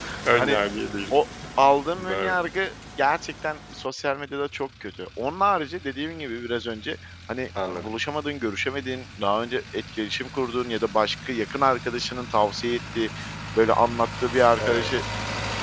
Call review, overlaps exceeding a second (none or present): none